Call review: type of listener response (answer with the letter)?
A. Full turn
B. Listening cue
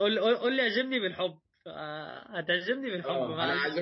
A